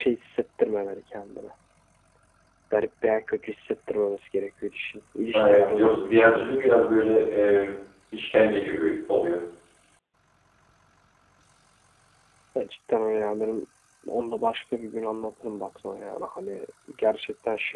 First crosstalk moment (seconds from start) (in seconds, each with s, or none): 5.3 s